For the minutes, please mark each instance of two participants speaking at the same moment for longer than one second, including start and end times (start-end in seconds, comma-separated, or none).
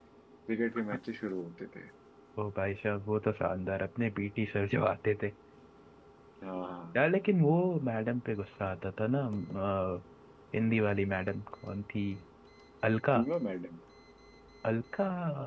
none